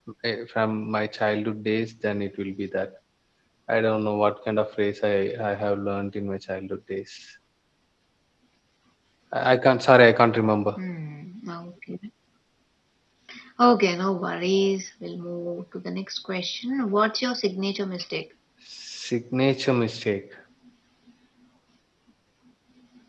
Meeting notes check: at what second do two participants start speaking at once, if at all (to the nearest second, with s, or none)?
none